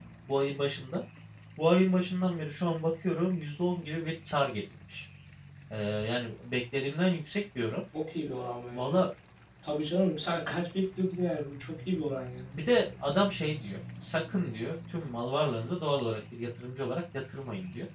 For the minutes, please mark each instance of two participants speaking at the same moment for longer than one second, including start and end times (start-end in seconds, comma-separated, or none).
none